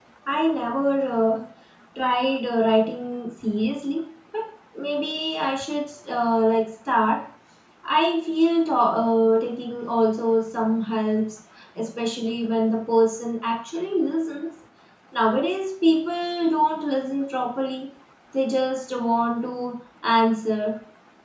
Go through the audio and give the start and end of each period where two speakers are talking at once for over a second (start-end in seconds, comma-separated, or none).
none